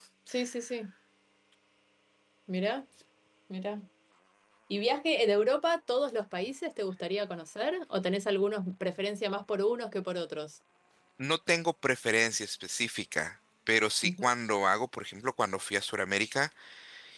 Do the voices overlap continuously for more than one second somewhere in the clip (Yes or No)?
No